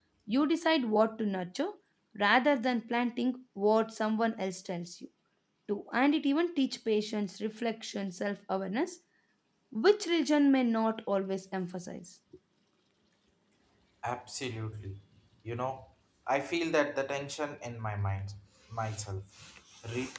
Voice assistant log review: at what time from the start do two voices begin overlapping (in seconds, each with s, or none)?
none